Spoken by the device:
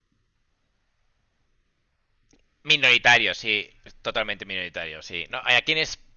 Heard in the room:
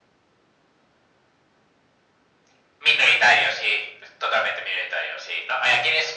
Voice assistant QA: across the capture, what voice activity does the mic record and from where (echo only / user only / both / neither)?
echo only